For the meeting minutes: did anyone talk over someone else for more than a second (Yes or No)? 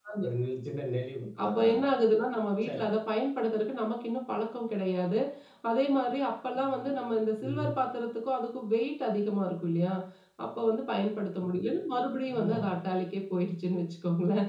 No